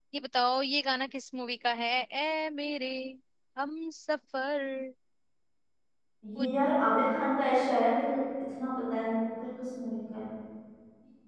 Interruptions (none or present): none